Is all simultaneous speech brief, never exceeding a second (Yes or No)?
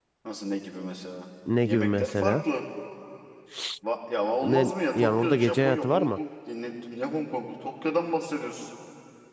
No